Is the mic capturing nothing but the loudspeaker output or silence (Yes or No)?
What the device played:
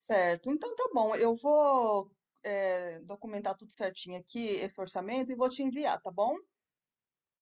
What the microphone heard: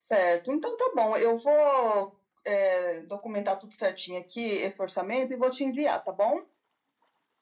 Yes